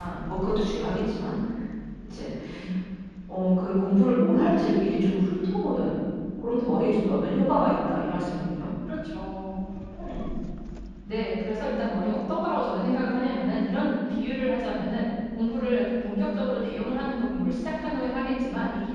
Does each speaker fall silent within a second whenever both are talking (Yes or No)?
Yes